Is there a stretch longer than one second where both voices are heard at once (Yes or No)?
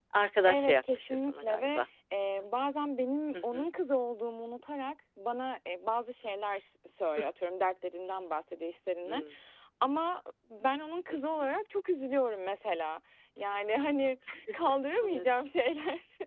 Yes